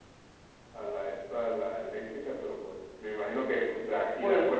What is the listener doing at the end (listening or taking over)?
listening